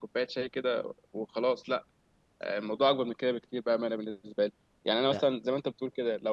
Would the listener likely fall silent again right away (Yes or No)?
Yes